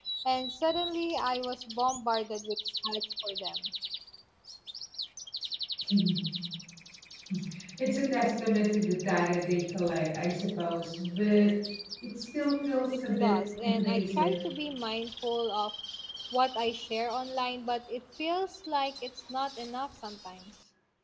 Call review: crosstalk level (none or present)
present